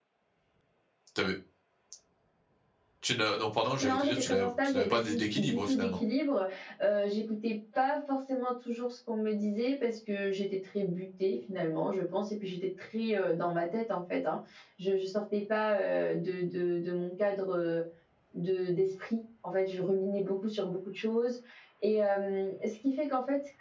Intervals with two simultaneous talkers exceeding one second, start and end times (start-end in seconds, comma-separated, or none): 3.8-5.9